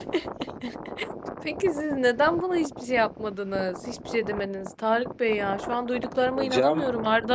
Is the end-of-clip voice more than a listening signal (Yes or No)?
No